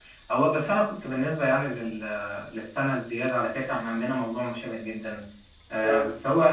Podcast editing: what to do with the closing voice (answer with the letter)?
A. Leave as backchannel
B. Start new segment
A